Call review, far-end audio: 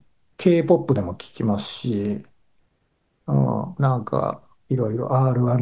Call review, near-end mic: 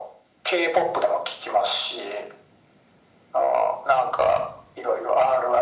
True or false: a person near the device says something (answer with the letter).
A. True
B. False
B